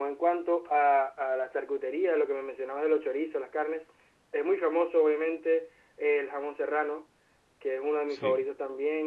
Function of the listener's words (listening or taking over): listening